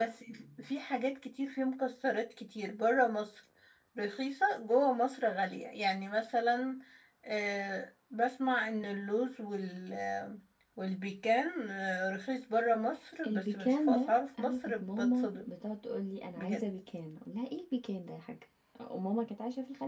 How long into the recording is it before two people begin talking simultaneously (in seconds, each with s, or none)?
13.3 s